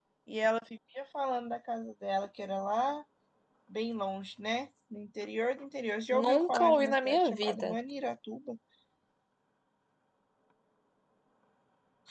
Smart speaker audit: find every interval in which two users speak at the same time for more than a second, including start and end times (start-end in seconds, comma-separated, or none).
6.1-7.8